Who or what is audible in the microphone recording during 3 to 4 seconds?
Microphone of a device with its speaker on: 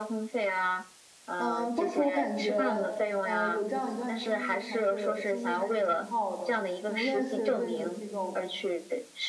both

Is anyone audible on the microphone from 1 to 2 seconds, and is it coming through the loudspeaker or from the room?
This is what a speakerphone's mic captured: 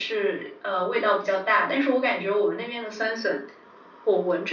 echo only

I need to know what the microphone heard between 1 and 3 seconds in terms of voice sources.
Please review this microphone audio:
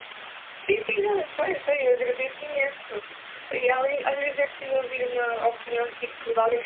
user only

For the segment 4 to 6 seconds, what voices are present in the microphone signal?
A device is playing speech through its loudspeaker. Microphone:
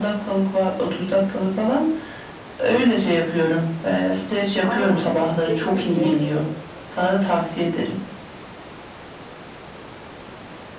both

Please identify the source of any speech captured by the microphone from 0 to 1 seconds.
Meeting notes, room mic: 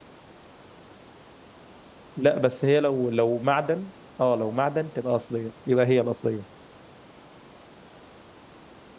neither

